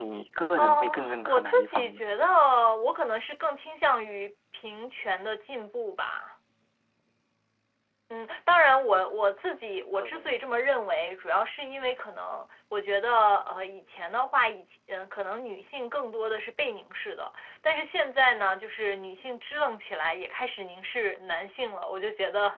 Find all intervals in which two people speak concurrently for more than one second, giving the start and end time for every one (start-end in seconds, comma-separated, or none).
0.6-2.0